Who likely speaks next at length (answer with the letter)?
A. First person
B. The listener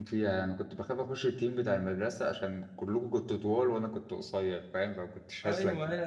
B